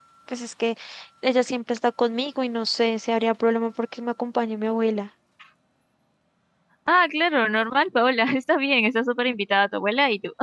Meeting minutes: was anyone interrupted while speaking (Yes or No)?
No